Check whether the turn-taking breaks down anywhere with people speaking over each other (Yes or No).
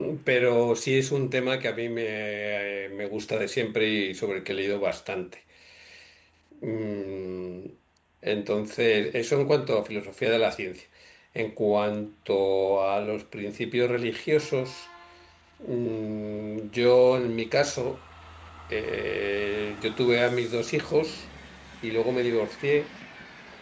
No